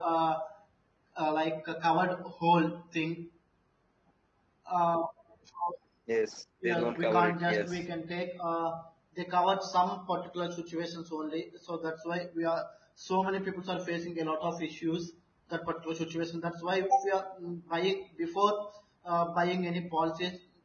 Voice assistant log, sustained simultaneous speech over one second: present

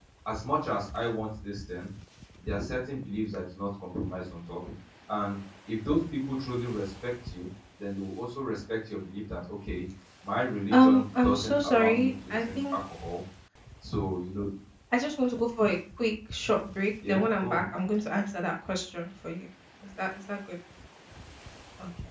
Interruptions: present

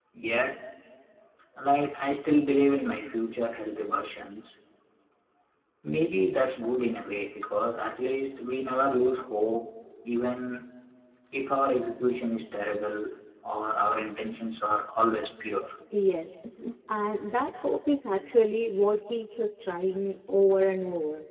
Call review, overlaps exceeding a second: none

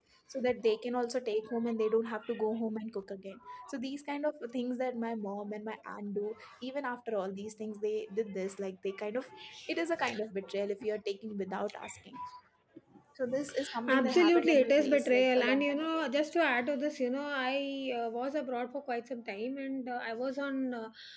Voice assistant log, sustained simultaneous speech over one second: present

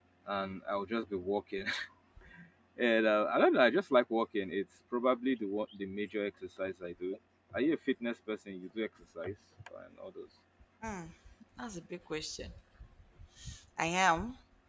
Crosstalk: none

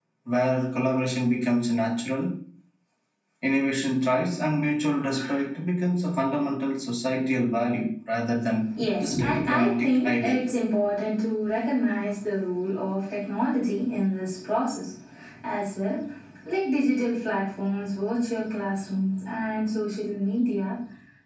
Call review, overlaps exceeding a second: present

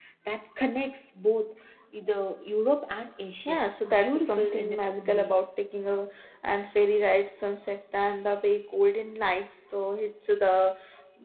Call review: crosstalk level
present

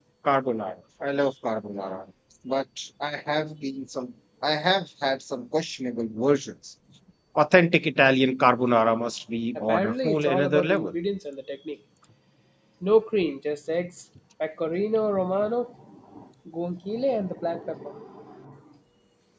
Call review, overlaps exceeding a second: present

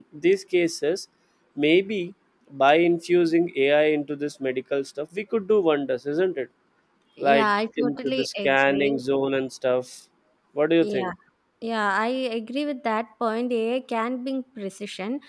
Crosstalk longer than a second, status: present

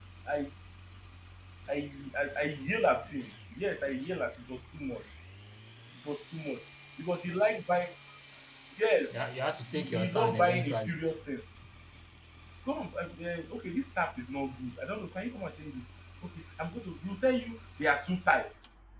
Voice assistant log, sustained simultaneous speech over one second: present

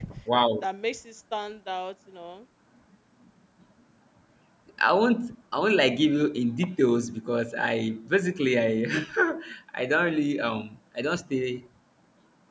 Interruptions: none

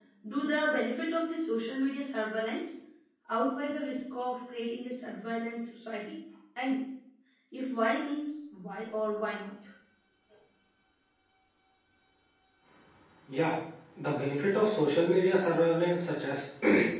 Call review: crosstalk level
none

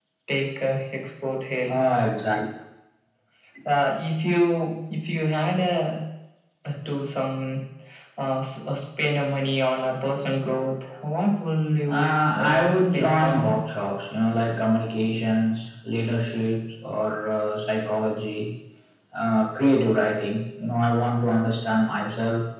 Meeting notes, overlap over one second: present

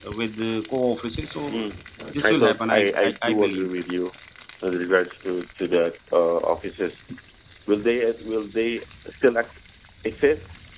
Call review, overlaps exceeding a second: present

